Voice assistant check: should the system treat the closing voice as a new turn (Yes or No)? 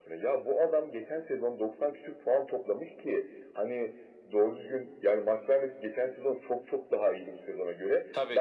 No